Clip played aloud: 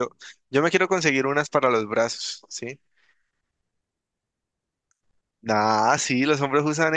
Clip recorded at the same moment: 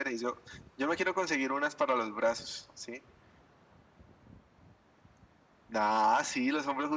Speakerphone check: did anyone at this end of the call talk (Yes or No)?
No